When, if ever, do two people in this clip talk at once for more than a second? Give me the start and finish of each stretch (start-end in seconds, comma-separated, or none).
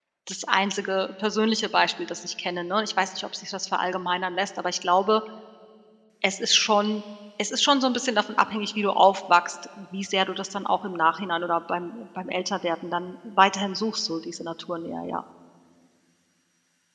none